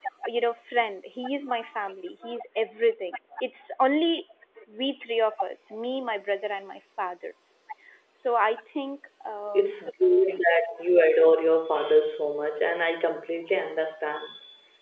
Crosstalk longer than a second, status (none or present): none